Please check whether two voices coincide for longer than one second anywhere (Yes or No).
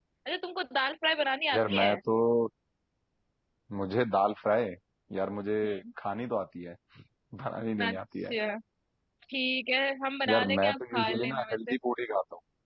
Yes